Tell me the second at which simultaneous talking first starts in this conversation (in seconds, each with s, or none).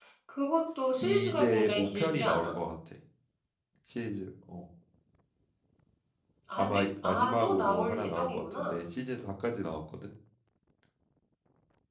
1.0 s